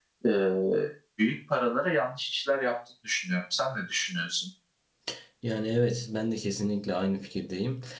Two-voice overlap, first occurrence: none

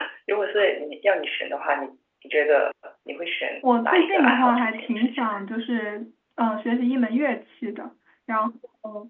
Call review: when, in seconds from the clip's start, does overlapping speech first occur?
3.6 s

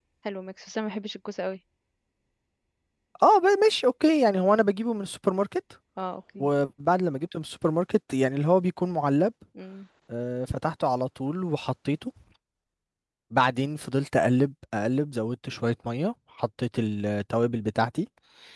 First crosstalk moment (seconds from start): none

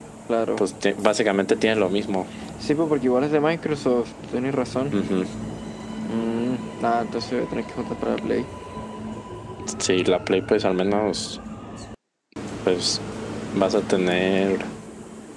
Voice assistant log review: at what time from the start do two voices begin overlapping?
none

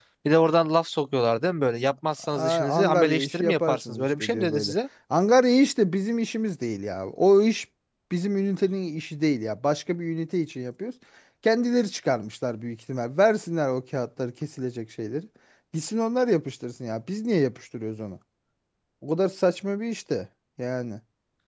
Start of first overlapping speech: 2.2 s

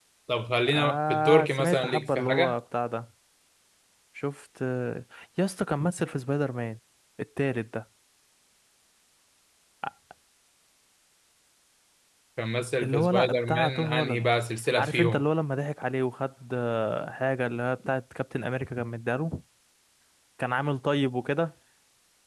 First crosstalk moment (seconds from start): 0.7 s

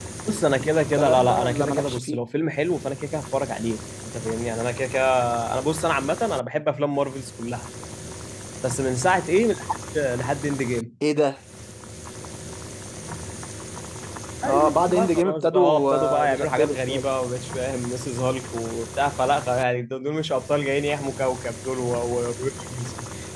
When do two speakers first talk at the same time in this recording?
0.9 s

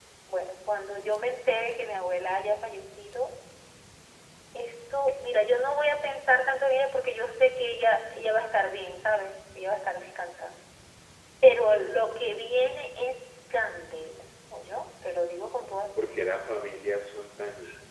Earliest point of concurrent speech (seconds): none

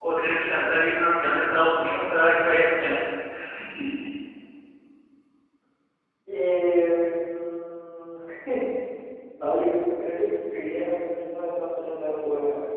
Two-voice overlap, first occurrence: none

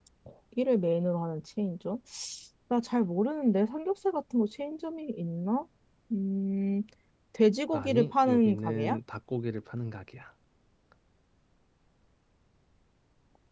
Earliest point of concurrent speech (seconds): 7.7 s

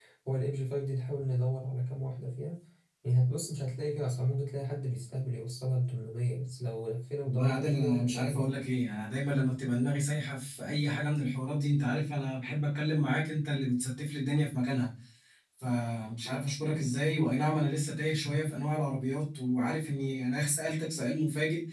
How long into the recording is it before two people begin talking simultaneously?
7.2 s

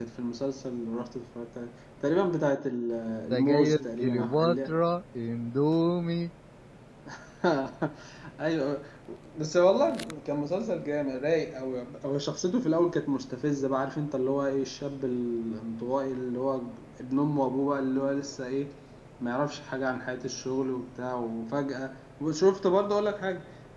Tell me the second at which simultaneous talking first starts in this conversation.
3.3 s

